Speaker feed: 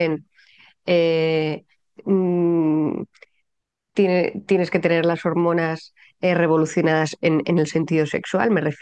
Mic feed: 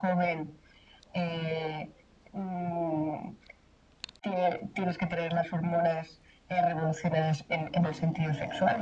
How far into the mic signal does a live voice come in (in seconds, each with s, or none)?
none